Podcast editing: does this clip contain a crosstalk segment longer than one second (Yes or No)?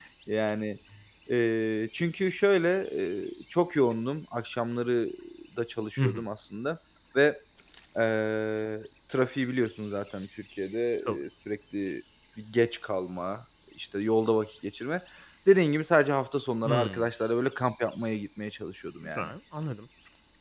No